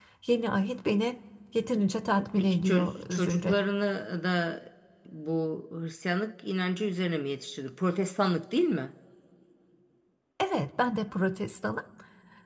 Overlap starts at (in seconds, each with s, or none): 2.4 s